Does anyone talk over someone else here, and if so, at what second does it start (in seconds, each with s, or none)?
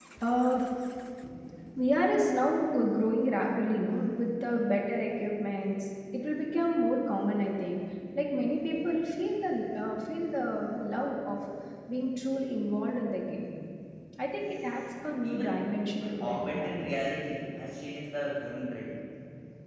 15.2 s